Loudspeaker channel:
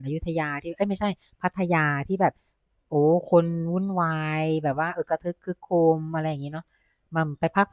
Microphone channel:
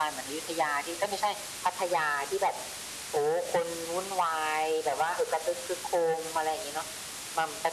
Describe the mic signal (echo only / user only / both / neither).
echo only